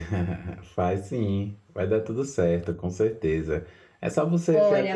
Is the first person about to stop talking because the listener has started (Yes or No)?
Yes